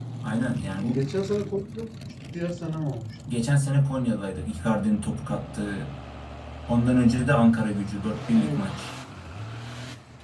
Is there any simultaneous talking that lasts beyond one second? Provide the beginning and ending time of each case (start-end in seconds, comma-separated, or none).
none